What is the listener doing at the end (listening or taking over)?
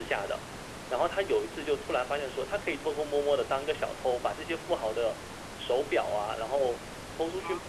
listening